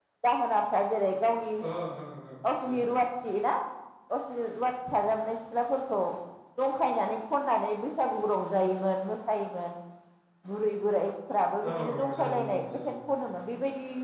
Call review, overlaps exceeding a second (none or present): present